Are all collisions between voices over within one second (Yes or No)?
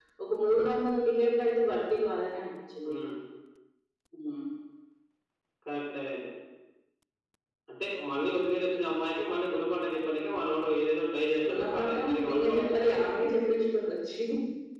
No